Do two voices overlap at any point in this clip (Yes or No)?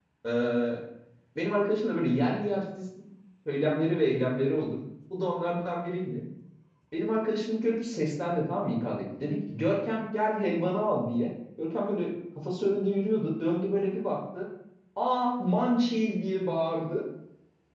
No